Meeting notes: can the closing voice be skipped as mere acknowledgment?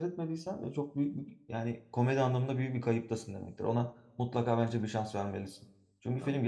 Yes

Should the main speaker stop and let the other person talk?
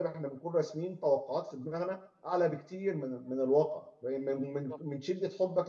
No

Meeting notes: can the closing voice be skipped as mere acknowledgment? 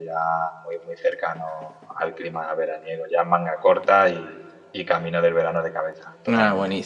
No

